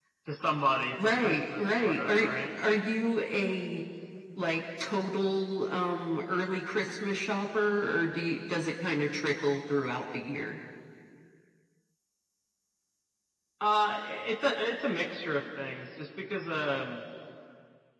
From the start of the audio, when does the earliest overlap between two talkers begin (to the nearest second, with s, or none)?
1 s